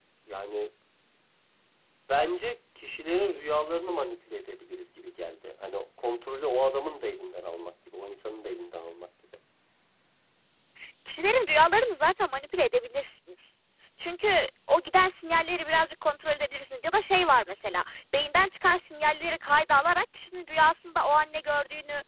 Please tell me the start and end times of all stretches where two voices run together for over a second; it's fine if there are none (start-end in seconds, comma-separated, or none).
none